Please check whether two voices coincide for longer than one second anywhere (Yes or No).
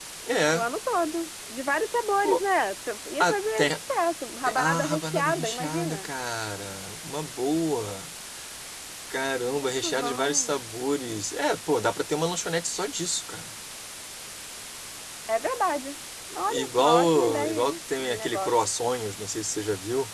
Yes